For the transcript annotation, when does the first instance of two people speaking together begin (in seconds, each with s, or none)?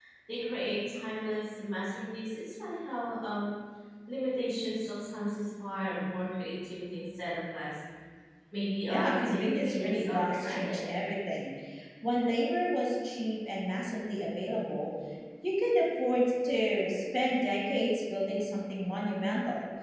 8.9 s